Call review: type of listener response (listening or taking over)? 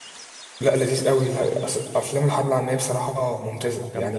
listening